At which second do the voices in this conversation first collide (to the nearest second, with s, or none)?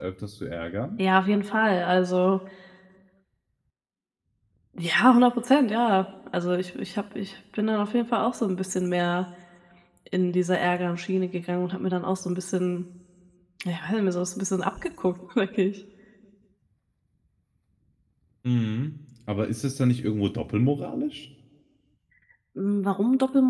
none